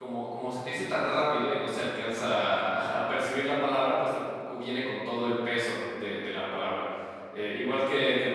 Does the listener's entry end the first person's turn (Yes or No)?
No